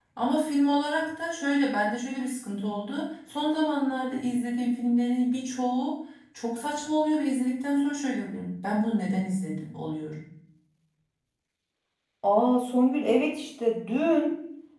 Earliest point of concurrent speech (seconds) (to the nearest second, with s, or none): none